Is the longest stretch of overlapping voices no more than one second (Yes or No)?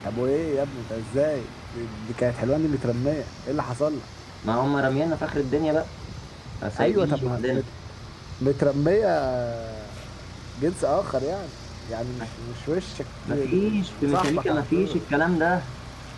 No